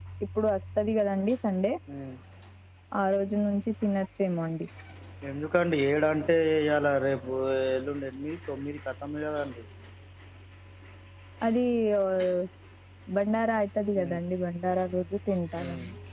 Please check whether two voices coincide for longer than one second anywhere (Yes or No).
No